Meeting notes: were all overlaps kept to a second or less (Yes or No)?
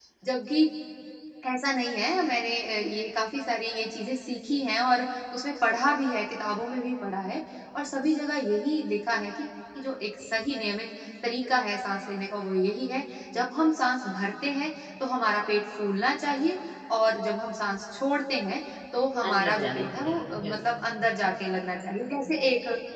No